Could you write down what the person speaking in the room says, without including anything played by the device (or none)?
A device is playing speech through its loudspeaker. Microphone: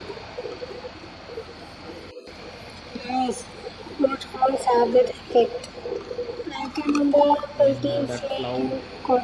when uh, that cloud